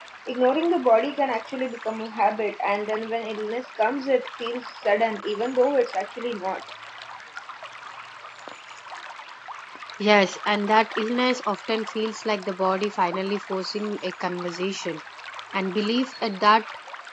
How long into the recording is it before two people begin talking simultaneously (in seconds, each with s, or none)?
none